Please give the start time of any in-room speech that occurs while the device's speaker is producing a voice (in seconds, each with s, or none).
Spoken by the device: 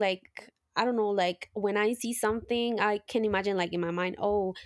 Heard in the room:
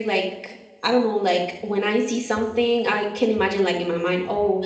none